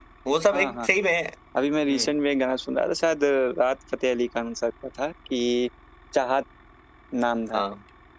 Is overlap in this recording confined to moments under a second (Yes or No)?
Yes